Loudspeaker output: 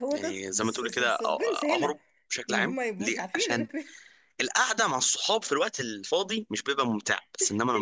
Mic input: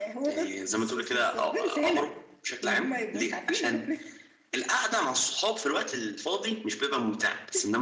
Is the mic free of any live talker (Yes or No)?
Yes